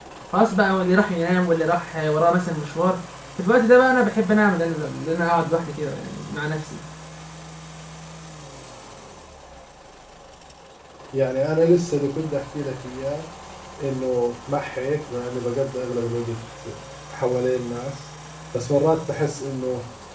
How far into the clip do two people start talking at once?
none

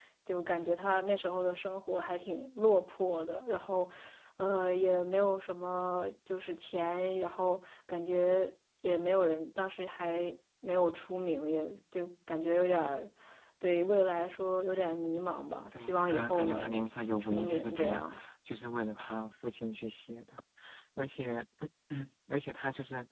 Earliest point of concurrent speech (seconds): 16 s

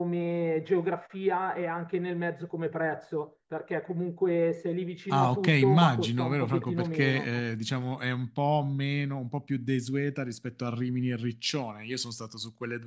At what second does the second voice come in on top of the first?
5 s

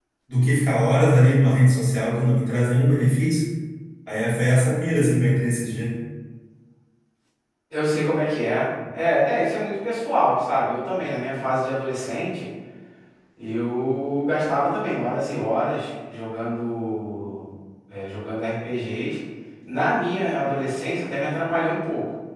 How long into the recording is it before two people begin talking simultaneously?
none

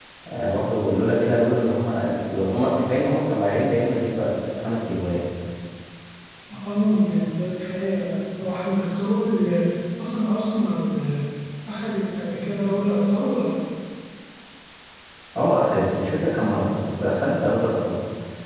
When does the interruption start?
none

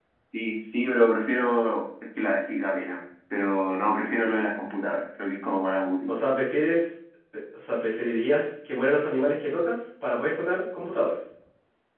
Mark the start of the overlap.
none

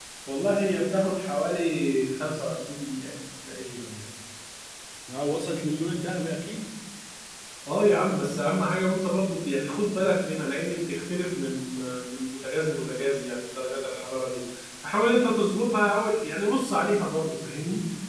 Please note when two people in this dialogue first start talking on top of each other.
none

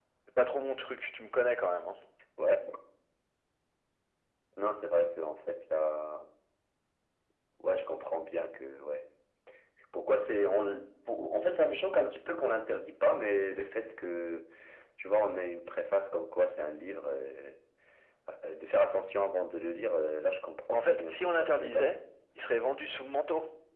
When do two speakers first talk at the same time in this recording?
21 s

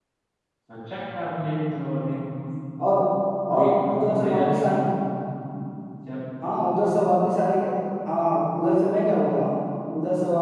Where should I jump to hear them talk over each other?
4 s

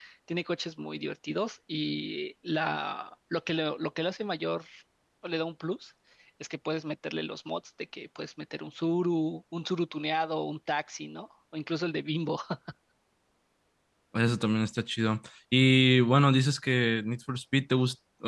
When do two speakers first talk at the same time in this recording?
none

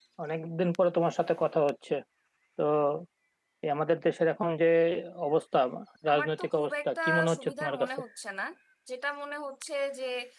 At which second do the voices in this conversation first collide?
6 s

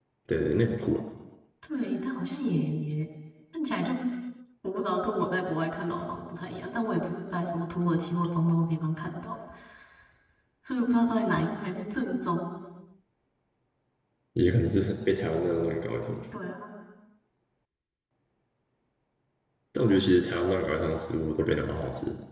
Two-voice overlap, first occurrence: none

